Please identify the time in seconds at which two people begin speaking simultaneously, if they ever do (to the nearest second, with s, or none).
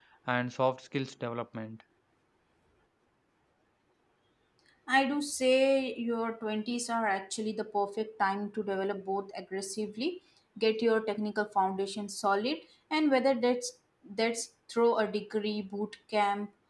none